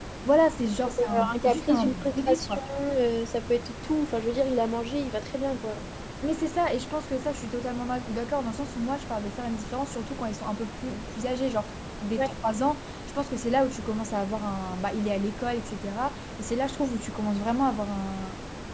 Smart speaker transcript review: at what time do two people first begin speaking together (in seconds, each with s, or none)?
1.0 s